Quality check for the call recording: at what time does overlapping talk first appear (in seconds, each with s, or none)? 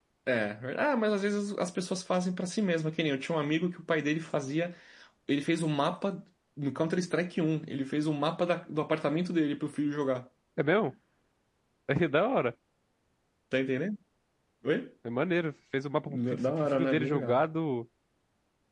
16.1 s